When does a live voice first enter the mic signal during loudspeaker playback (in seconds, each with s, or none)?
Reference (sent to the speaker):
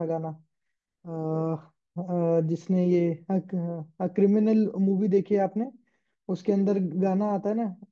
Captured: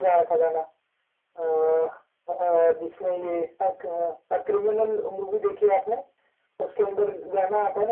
none